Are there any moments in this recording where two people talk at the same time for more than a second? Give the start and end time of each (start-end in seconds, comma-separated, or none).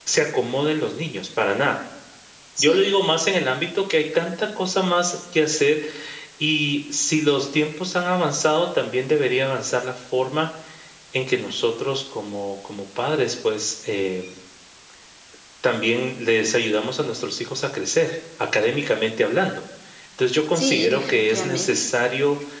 20.5-21.9